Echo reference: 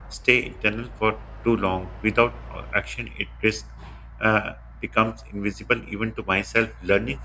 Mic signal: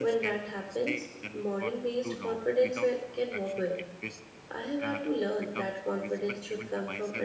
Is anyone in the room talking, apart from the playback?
Yes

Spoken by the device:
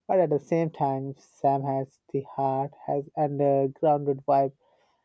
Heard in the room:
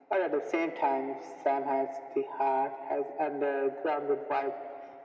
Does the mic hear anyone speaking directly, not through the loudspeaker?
No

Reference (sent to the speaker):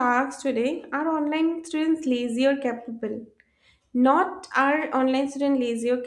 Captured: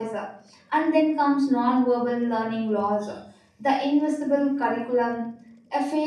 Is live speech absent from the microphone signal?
No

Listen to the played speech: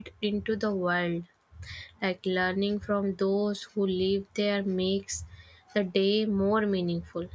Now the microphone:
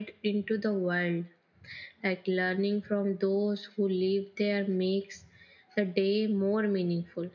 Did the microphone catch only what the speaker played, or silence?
Yes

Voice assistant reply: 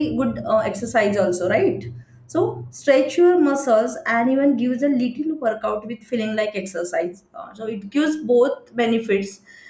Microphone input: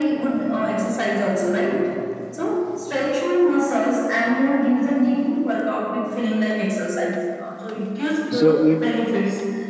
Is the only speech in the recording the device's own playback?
No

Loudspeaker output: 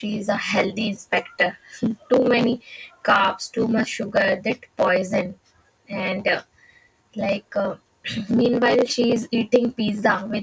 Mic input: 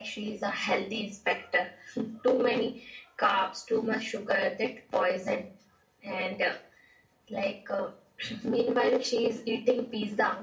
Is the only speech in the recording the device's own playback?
Yes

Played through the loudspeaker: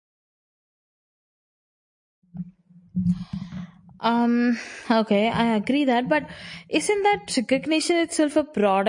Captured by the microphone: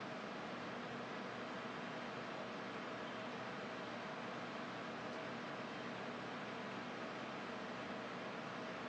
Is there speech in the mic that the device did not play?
No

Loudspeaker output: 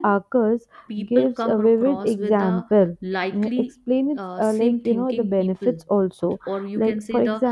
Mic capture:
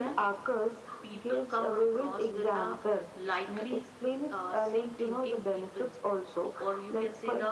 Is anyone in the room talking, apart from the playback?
No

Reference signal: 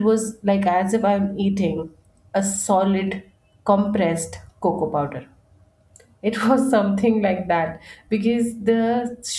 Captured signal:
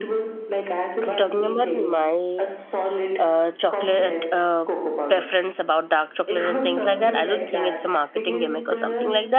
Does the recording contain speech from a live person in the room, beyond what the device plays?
Yes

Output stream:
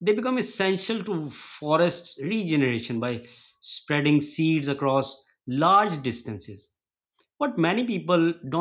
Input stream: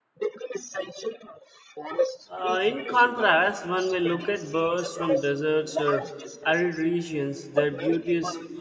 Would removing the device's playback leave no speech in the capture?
No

